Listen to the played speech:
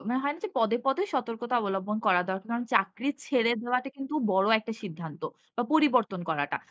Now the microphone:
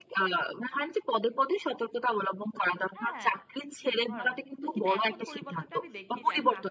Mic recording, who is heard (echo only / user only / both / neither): both